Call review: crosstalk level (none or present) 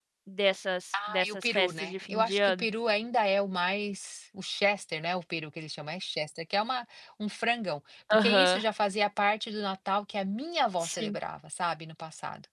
present